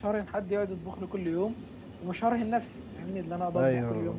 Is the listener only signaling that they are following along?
No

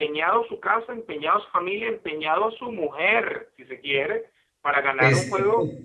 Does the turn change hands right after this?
No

